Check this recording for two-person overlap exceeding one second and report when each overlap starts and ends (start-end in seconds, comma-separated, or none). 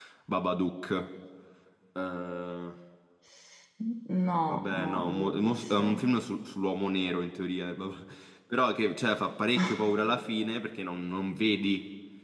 4.5-5.9